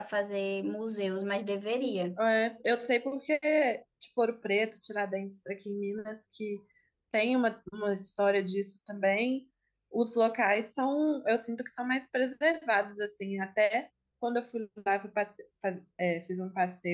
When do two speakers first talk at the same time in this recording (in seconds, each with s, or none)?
none